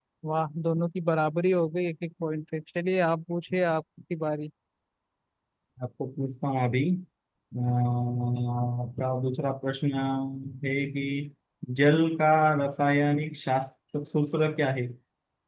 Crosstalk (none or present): none